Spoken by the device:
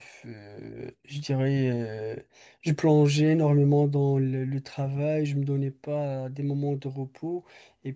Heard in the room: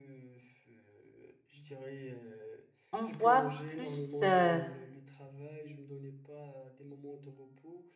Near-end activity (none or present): present